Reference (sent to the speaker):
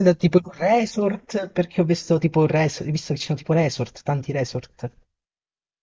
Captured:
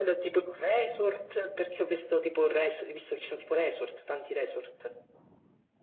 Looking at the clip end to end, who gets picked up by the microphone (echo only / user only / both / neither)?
echo only